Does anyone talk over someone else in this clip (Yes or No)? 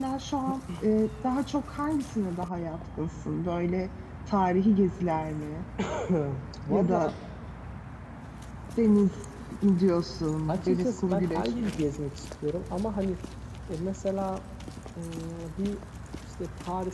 Yes